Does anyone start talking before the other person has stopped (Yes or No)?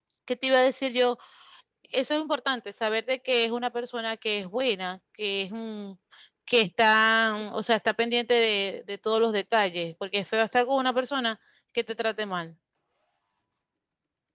No